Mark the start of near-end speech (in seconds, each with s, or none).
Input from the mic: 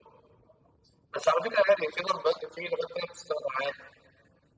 none